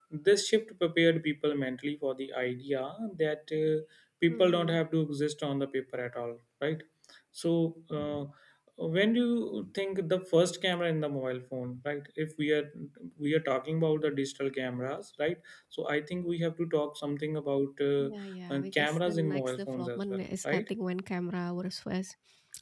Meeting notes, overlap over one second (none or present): present